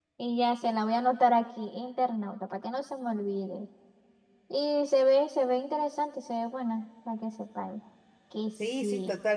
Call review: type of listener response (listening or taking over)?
taking over